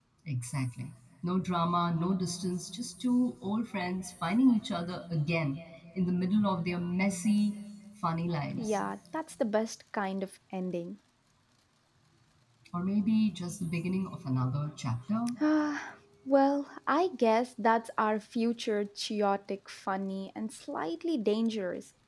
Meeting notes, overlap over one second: none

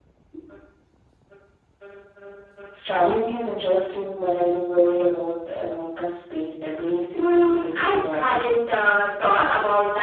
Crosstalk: present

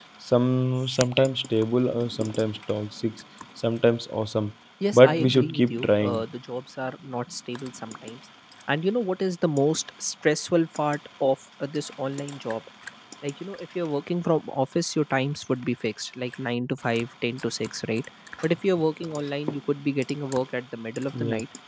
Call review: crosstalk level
present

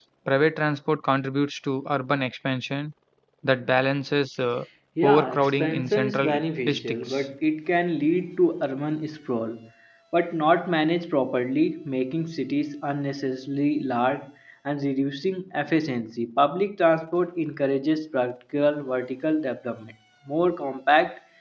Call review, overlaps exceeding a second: present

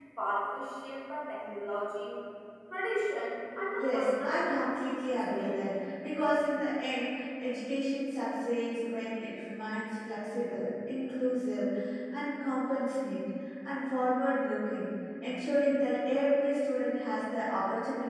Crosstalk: present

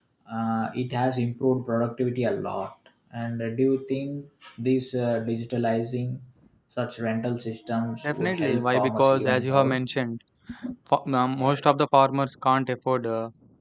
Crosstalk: present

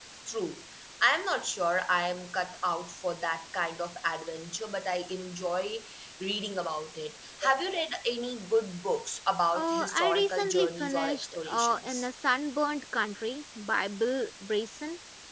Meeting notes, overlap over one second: present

